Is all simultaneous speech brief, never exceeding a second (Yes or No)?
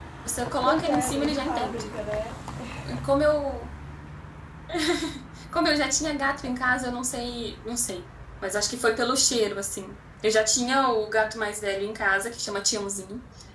No